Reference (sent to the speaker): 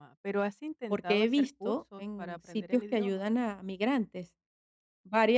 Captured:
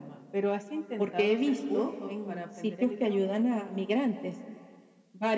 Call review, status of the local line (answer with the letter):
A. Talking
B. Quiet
B